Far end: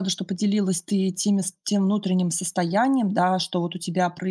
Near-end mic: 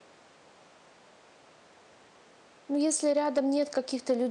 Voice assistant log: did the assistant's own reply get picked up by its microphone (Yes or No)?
No